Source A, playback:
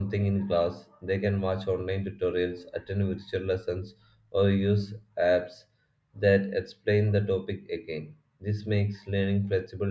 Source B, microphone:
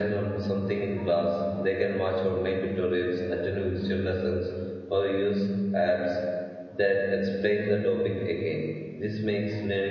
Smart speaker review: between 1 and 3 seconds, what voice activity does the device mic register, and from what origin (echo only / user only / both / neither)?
echo only